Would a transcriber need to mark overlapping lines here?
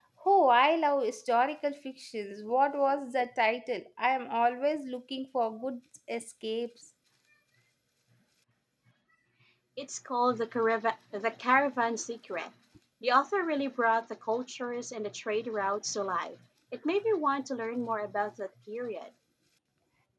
No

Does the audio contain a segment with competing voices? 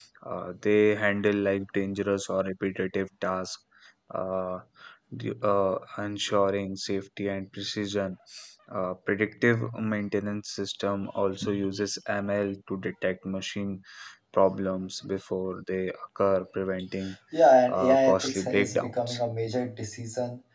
Yes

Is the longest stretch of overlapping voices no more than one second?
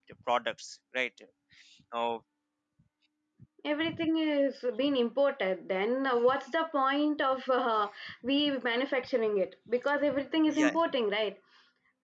Yes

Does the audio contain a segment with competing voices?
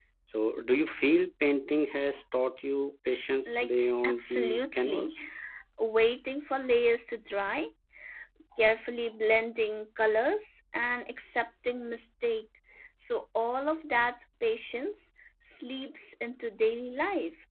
Yes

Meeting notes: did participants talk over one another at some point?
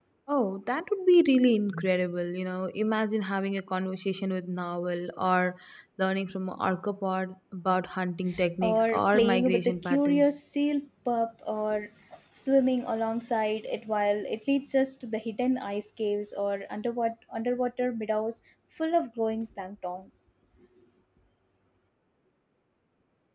Yes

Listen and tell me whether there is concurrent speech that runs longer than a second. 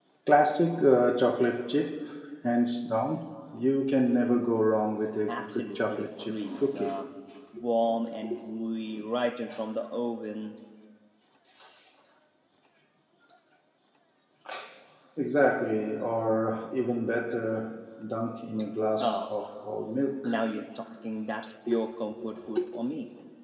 Yes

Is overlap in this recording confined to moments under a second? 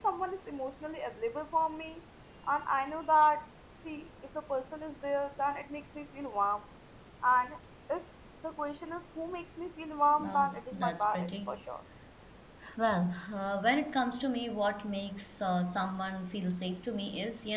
No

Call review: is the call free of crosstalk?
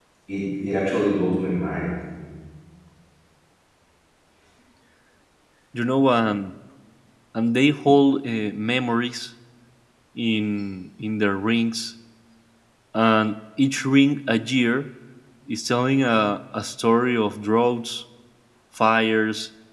Yes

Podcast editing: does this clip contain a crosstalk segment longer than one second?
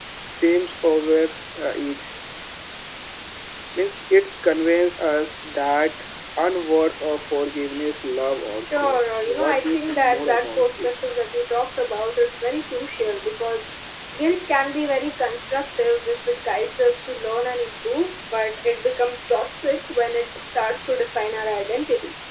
Yes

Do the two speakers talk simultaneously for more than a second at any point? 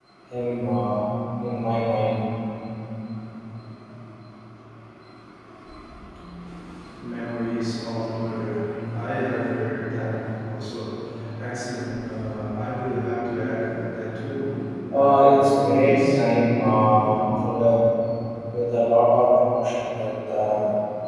Yes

